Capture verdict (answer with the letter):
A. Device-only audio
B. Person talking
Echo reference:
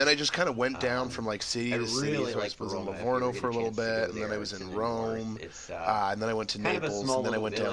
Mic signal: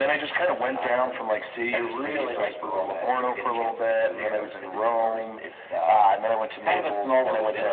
A